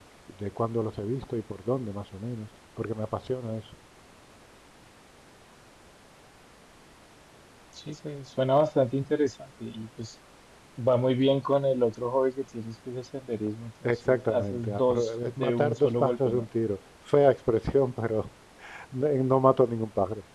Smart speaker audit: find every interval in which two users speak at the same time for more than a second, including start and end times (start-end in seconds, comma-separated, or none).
13.9-16.5